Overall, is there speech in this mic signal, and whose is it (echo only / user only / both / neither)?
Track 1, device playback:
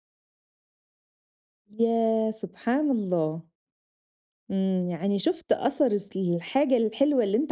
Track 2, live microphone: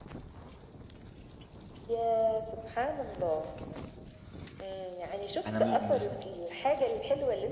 both